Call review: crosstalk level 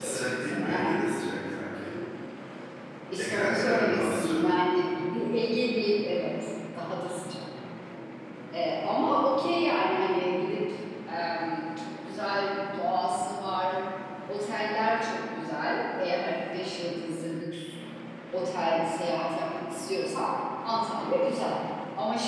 present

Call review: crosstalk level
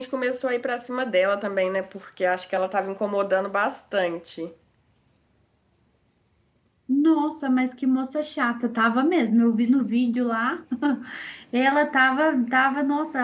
none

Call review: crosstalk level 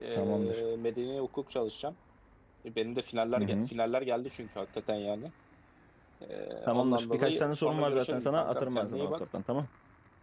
present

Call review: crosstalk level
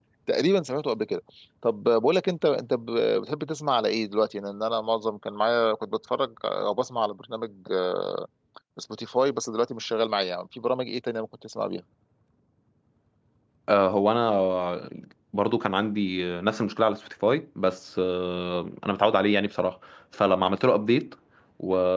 none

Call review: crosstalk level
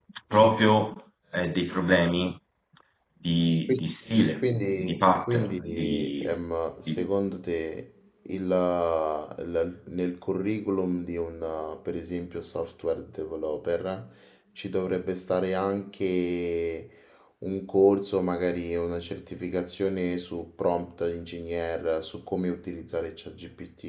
present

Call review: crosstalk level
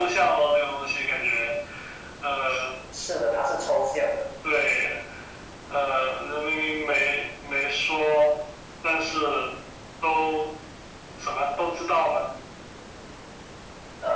none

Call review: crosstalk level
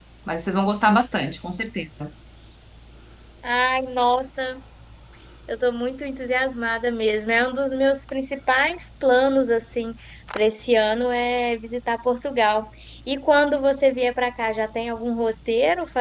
none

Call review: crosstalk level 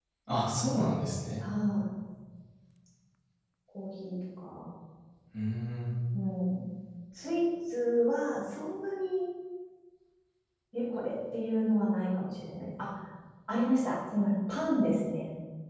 none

